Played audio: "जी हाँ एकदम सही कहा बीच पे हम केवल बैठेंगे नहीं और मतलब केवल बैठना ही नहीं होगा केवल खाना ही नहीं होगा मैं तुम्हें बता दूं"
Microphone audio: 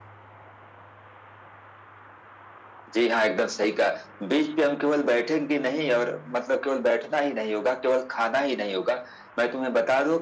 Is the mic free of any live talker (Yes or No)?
Yes